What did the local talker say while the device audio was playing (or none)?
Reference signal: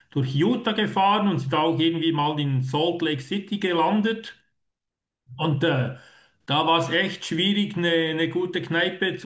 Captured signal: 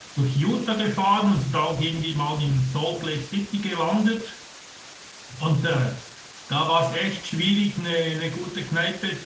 none